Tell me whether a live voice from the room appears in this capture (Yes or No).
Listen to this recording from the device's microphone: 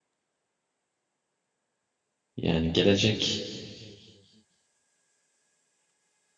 Yes